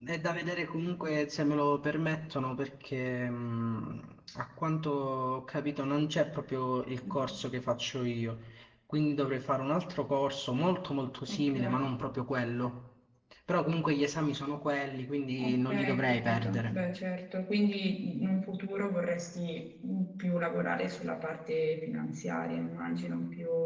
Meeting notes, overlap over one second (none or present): present